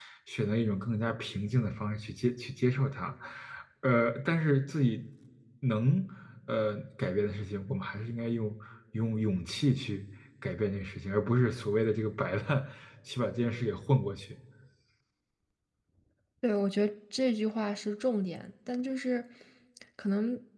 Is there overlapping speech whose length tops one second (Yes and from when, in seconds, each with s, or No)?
No